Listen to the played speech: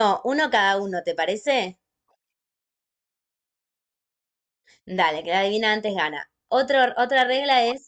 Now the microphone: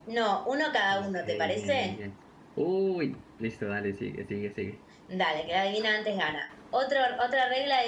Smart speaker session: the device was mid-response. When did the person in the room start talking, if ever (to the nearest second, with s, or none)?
1 s